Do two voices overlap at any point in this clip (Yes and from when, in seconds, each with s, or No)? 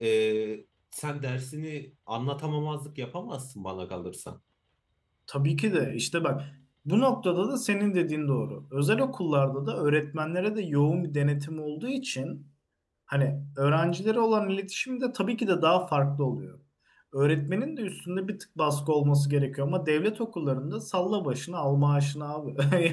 No